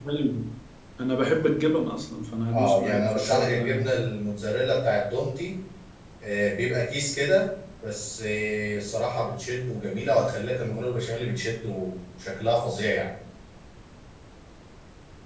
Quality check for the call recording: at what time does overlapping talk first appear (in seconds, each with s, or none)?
2.5 s